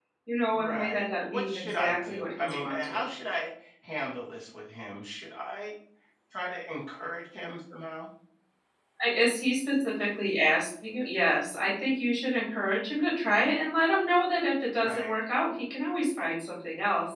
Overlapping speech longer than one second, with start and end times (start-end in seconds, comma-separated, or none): 0.5-3.0